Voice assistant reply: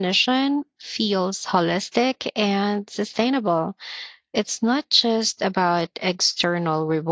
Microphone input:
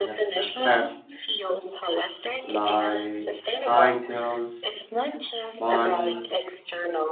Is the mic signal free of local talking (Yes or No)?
No